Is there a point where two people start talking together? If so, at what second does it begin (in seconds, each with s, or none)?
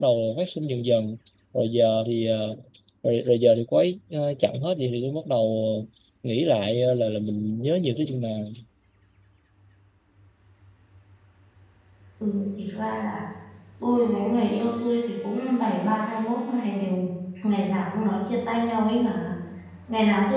none